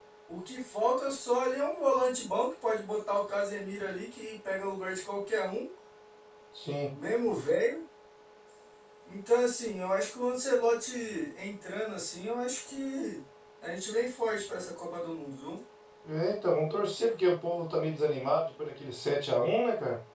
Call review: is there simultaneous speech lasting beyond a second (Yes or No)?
No